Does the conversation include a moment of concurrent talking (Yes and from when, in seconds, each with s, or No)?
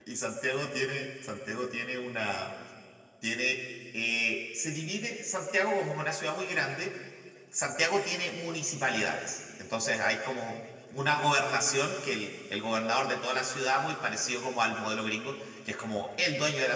No